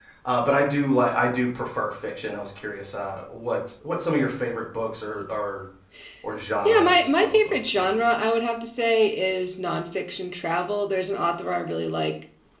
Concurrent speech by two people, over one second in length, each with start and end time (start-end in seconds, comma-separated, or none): 6.7-8.1